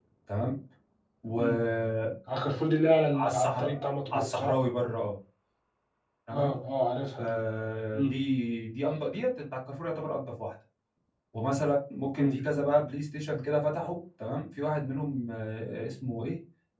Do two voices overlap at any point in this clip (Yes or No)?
Yes